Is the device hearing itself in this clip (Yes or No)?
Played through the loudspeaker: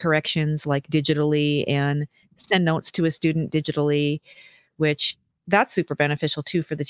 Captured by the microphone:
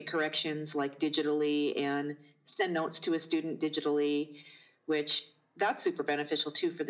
Yes